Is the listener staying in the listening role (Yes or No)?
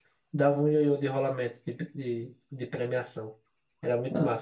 No